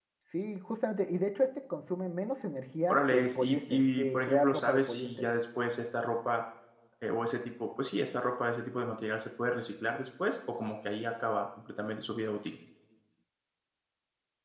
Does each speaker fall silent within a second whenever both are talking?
No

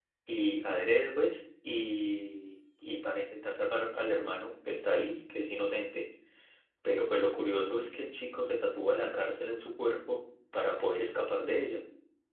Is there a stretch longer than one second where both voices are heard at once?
No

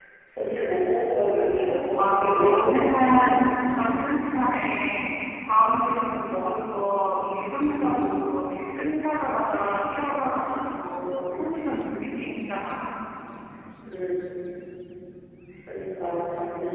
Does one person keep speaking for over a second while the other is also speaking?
Yes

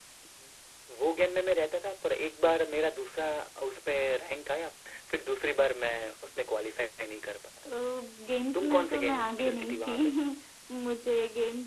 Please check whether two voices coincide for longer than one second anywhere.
Yes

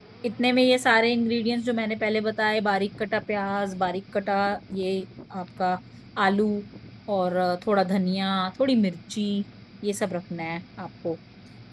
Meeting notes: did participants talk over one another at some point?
No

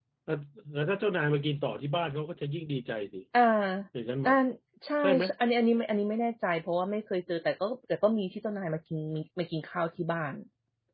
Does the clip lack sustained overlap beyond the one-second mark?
Yes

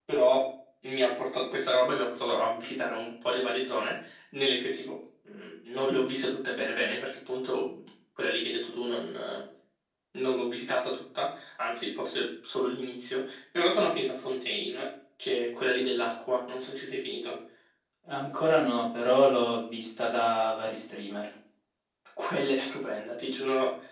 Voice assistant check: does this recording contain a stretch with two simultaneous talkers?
No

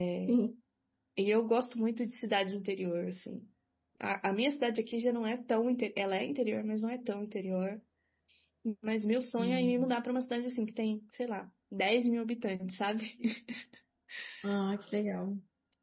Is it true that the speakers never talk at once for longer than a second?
Yes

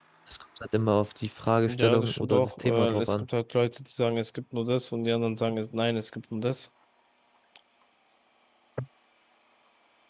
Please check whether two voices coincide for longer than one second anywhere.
Yes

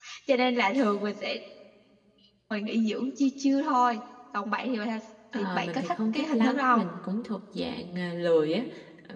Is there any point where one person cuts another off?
Yes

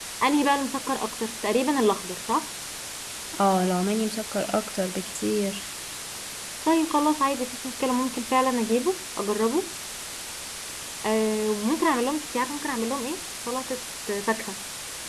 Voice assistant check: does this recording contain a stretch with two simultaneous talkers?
No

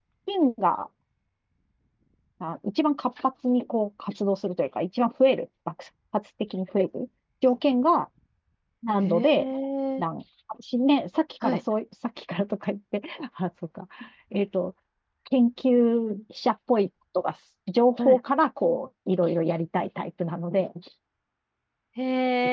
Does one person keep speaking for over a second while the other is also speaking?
No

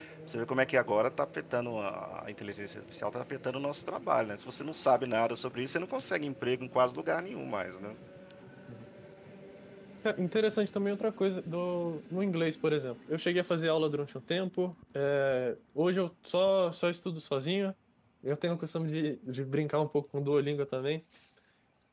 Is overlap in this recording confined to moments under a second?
Yes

